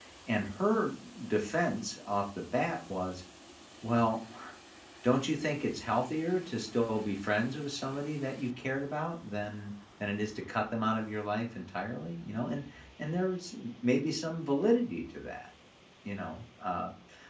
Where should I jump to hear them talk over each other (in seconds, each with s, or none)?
none